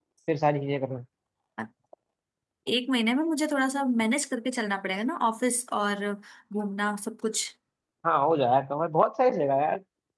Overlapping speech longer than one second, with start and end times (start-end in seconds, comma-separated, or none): none